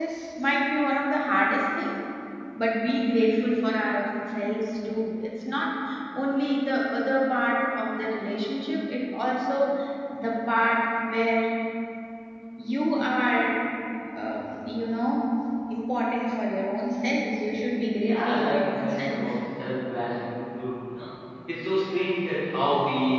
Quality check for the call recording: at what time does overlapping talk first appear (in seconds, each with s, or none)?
18.1 s